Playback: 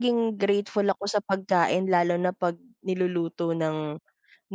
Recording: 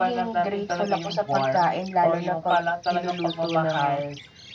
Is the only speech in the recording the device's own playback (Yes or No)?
No